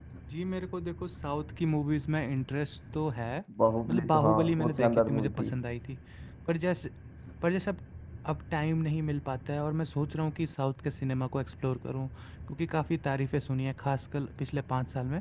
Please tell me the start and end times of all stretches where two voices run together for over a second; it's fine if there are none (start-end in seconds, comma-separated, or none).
3.9-5.5